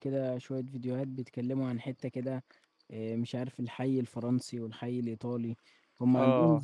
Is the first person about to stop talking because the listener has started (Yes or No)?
No